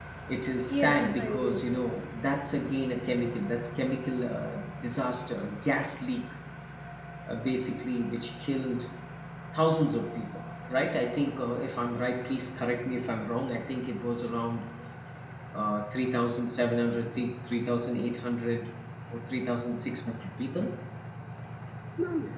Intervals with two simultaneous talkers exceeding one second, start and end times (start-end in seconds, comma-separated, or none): 0.7-2.0